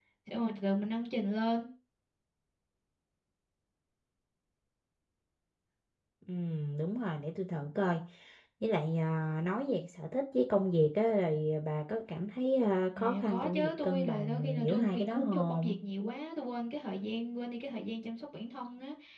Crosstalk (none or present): present